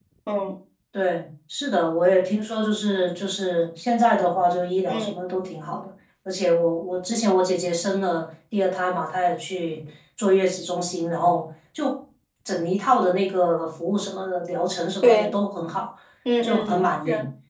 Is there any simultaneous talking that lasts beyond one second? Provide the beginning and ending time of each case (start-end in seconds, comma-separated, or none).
none